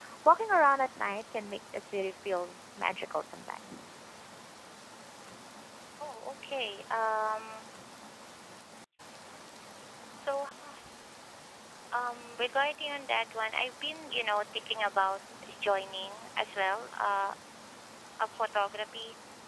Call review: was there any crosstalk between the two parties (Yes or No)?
No